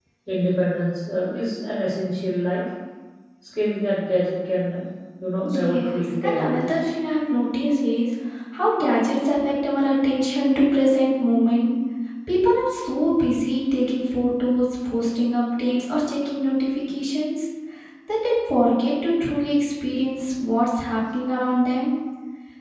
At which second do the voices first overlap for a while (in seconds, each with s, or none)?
5.4 s